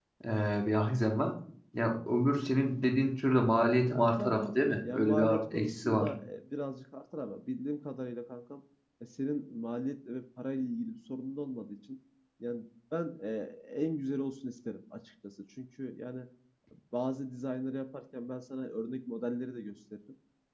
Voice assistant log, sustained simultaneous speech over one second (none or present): present